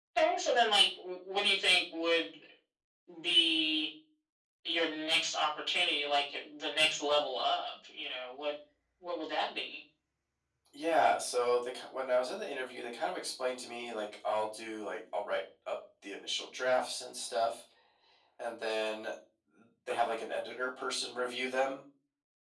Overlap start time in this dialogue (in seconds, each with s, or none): none